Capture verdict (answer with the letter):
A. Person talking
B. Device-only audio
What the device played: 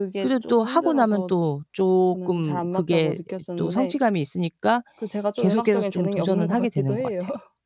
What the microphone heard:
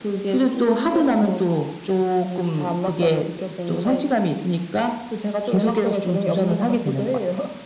B